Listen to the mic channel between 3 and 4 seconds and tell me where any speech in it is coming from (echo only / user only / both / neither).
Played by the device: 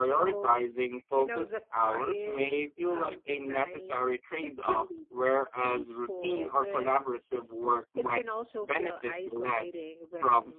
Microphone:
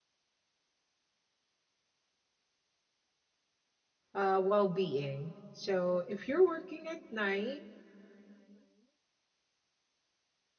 neither